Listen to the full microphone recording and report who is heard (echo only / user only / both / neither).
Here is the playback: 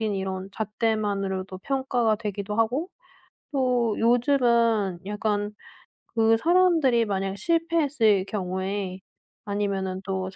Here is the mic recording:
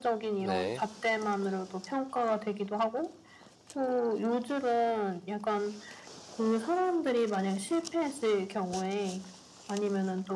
both